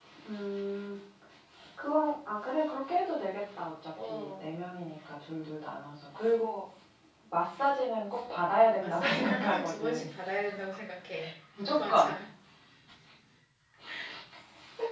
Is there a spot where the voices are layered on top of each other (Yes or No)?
Yes